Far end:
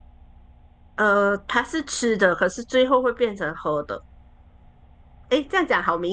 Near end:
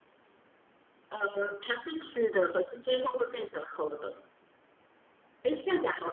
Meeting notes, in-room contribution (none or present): none